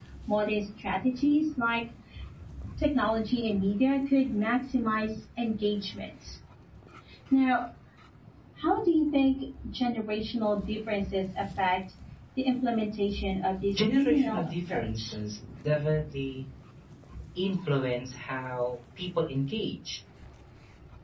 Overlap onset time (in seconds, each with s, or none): 13.6 s